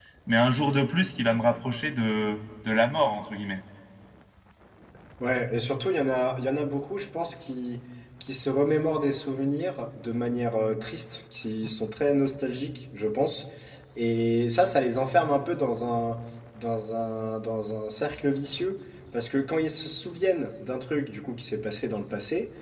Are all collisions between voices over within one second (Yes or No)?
Yes